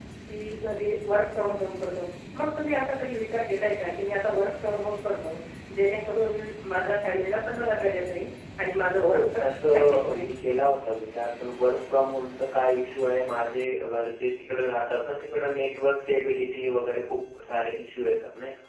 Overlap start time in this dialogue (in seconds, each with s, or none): 9.0 s